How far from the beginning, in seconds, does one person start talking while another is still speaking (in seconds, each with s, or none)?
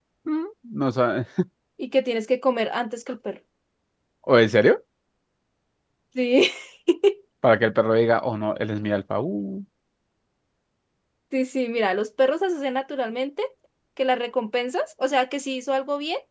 none